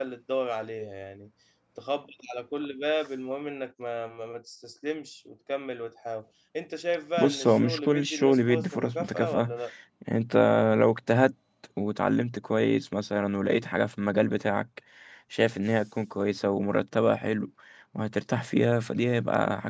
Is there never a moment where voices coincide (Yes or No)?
No